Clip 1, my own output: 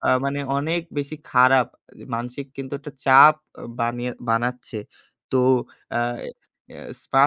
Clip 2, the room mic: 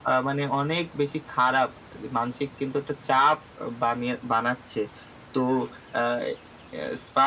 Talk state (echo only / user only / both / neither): echo only